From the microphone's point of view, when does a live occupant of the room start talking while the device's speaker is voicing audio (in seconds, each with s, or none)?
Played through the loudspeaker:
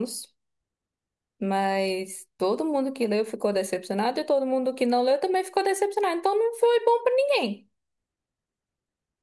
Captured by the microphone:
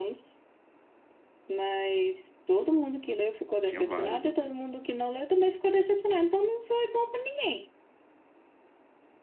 3.6 s